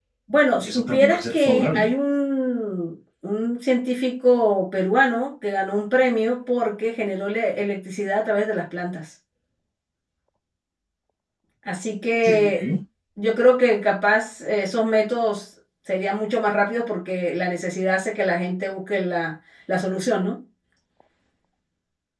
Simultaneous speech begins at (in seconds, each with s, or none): 0.6 s